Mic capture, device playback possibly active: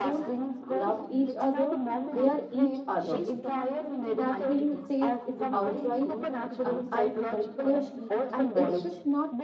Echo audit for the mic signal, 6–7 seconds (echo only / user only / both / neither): both